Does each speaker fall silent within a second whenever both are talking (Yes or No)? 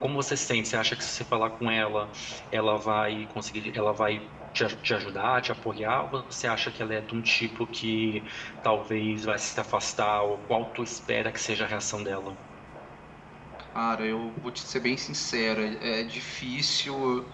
Yes